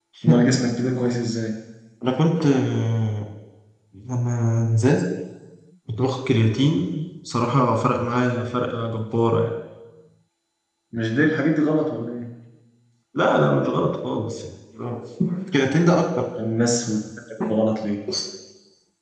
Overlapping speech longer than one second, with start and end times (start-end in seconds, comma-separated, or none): none